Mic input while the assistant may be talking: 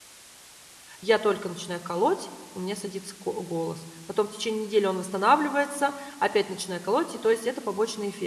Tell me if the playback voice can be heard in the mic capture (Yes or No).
No